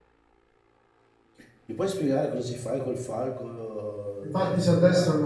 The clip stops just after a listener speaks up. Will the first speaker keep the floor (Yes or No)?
No